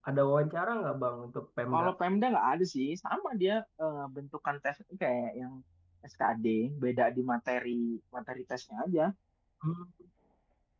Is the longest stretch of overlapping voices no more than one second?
Yes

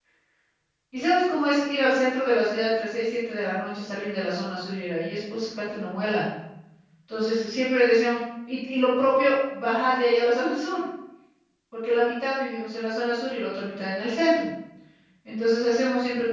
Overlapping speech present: No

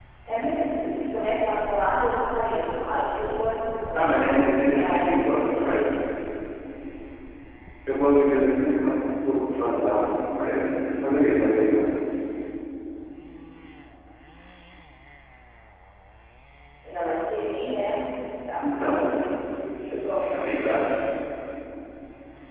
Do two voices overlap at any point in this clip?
Yes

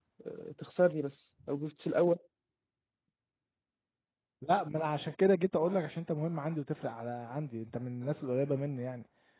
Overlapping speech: No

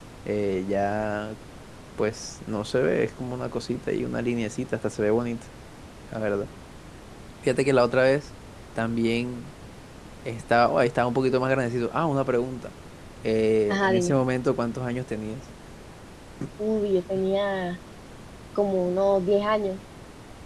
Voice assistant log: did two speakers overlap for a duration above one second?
No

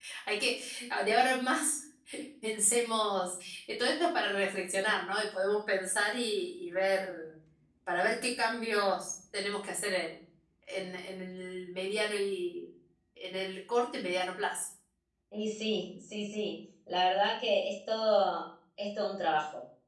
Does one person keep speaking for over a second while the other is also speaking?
No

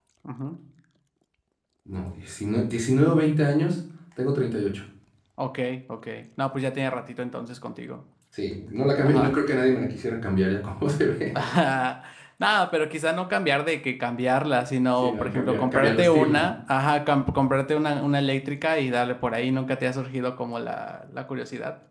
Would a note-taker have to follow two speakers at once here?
Yes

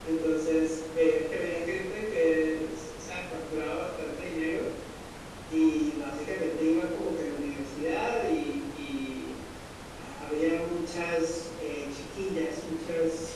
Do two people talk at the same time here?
No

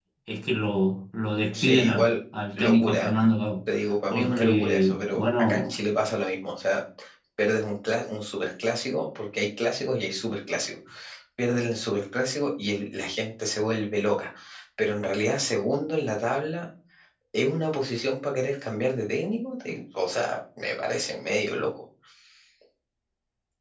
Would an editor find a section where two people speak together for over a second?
Yes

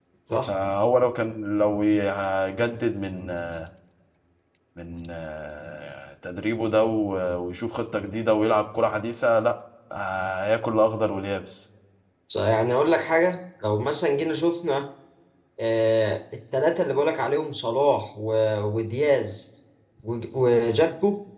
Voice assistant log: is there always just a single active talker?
Yes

